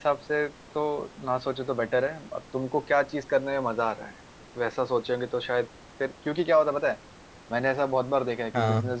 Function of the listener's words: listening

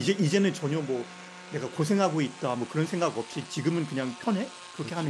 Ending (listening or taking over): taking over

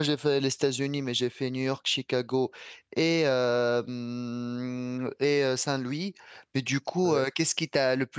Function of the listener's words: listening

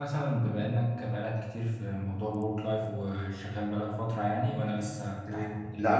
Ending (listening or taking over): taking over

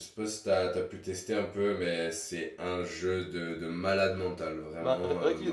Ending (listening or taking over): taking over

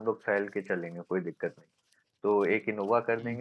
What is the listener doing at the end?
listening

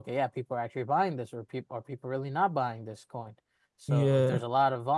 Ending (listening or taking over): listening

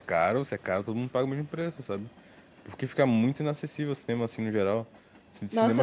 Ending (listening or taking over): taking over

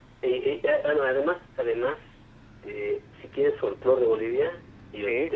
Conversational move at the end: listening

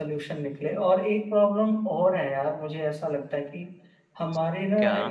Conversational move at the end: listening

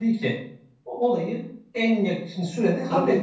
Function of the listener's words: taking over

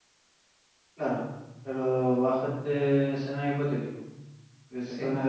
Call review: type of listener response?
listening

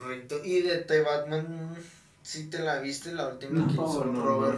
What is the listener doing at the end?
taking over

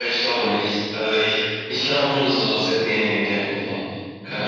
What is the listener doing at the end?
taking over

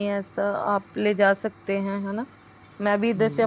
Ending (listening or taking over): taking over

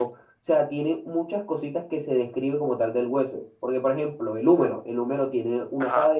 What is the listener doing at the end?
listening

